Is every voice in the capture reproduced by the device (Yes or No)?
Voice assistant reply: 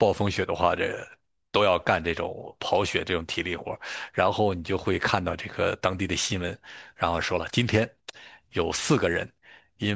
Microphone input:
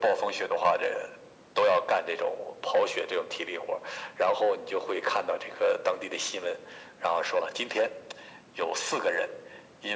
Yes